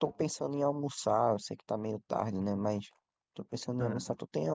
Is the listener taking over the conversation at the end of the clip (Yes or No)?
No